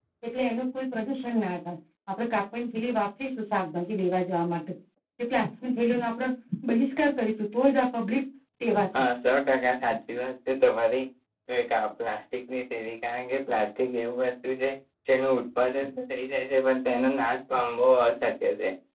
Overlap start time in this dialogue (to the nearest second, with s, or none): none